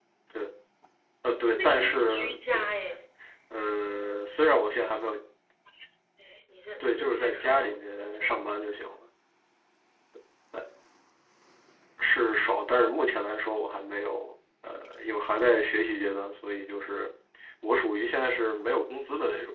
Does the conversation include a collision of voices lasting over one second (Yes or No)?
Yes